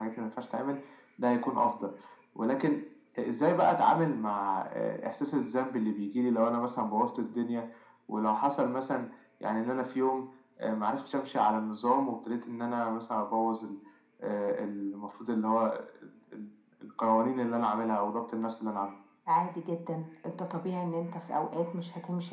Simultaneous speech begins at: none

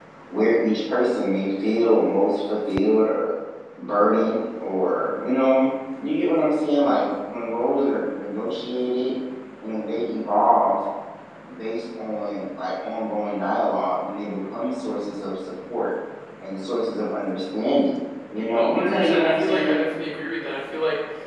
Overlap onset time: 18.5 s

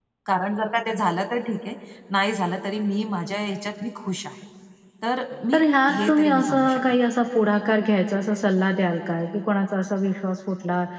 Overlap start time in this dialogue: 5.5 s

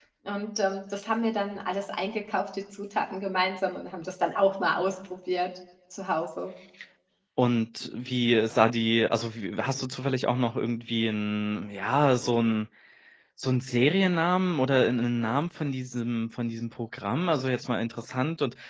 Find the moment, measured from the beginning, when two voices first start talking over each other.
none

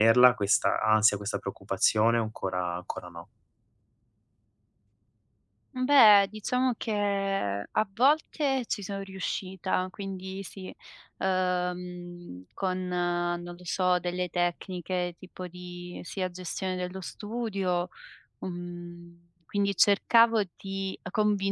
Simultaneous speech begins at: none

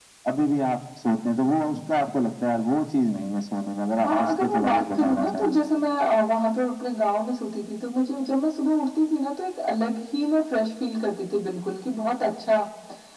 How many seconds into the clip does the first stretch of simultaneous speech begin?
4.0 s

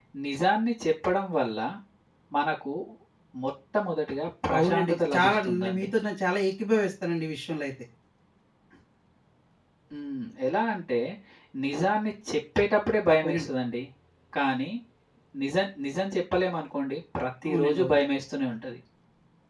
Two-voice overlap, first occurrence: 4.5 s

